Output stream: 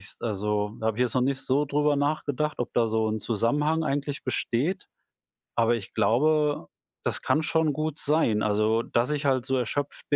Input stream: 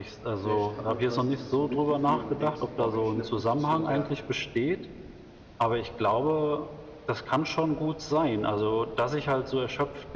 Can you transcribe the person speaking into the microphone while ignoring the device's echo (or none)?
Vielleicht hat man quasi dieses Mitgefühl. Man denkt sich: „Boah, wenn ich in der Position wäre,